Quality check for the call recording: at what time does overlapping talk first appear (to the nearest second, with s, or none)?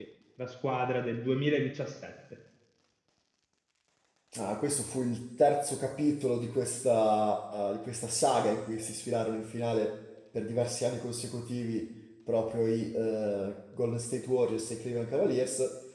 none